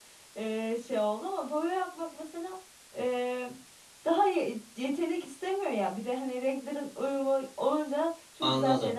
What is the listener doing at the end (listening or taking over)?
taking over